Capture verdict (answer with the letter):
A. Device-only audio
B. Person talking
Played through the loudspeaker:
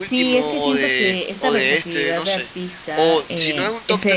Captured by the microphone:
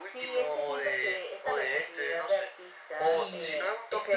B